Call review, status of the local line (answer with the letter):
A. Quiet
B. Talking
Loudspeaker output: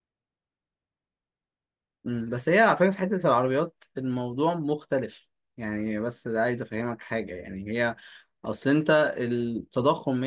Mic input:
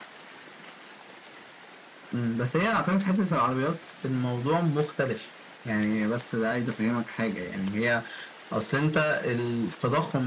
A